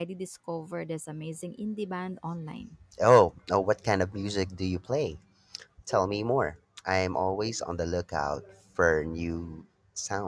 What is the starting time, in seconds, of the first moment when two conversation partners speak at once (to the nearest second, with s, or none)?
none